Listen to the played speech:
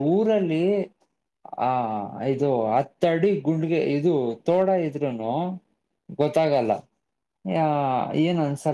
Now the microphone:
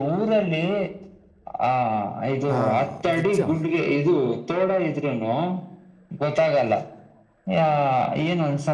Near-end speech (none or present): present